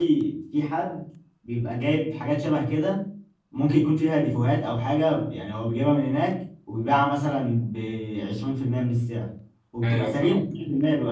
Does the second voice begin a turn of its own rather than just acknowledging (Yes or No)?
No